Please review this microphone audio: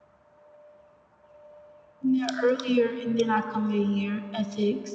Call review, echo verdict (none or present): none